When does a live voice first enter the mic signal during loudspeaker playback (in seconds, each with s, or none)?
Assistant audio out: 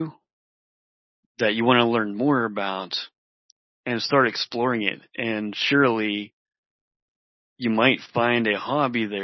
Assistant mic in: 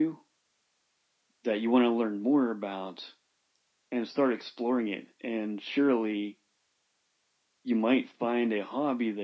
none